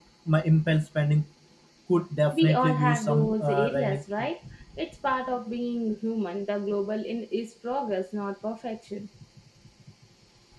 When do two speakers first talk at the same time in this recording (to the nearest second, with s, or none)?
2 s